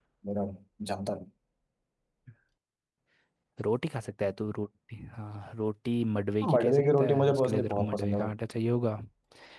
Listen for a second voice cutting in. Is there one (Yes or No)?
Yes